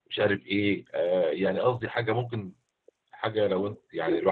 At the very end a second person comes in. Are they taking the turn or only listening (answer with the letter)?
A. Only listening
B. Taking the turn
A